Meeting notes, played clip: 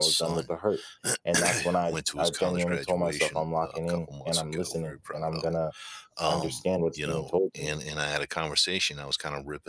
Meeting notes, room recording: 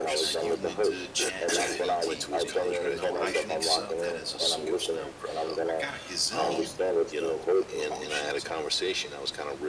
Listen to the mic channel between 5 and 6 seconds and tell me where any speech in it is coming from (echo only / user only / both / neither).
both